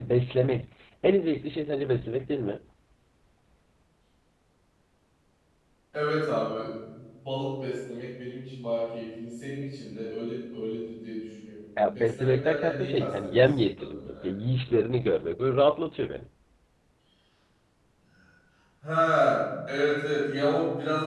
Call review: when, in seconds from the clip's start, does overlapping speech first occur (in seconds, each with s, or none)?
11.8 s